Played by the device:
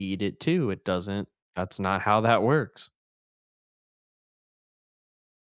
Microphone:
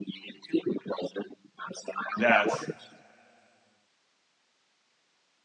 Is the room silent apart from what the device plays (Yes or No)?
No